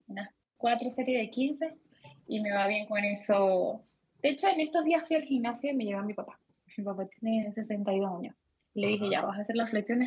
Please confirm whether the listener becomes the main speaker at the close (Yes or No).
No